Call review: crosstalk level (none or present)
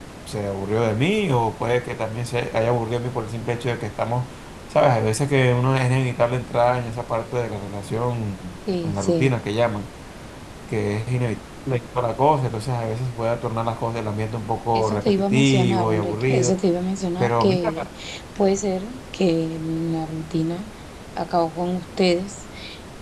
present